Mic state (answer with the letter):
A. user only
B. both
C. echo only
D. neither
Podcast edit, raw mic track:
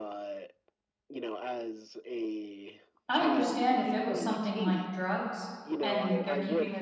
B